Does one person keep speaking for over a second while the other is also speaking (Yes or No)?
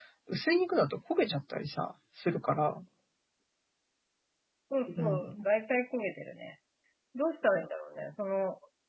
No